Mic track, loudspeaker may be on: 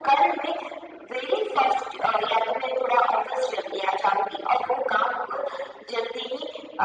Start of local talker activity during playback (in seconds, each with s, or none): none